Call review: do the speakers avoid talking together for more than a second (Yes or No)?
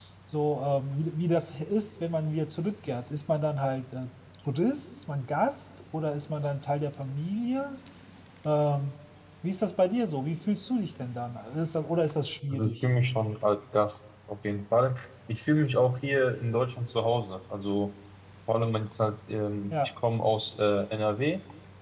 Yes